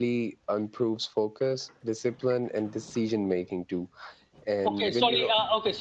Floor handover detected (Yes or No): Yes